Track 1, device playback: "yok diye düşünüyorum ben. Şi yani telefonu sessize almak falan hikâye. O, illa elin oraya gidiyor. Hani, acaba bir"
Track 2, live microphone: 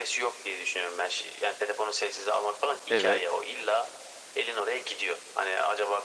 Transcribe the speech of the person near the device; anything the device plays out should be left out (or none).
Evet.